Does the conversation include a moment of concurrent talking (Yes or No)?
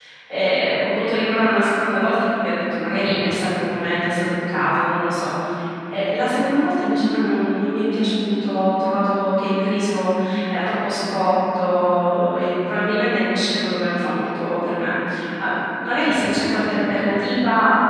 No